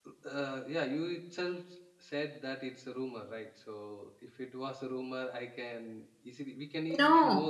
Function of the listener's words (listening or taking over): taking over